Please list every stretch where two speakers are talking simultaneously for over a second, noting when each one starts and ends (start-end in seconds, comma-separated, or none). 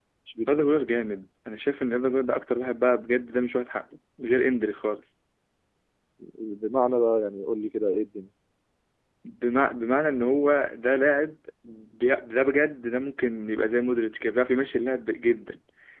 none